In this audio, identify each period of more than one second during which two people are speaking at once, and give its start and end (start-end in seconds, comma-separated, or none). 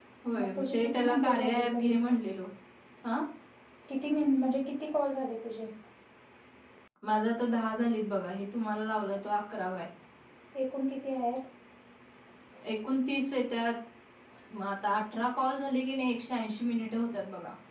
0.6-1.9